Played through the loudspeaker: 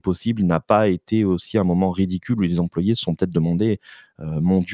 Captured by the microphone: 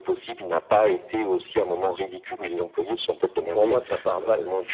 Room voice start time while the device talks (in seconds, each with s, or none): 3.5 s